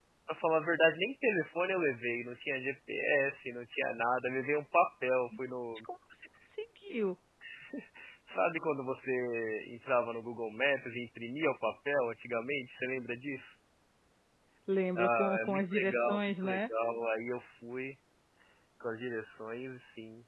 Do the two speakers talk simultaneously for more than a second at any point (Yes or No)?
Yes